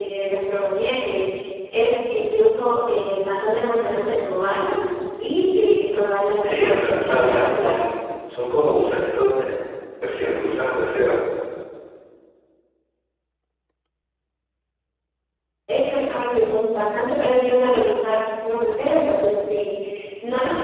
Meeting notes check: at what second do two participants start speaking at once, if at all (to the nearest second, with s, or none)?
6 s